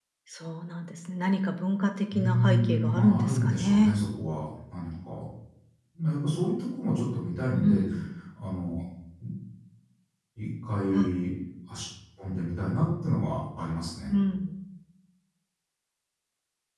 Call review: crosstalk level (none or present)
present